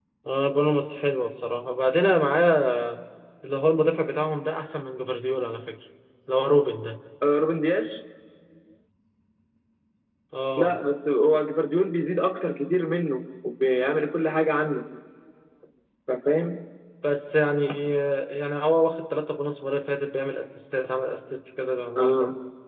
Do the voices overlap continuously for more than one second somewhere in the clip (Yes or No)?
No